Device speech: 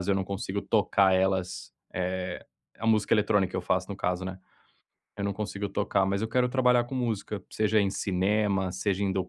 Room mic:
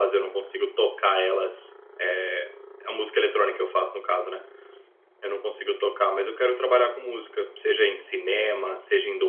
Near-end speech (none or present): none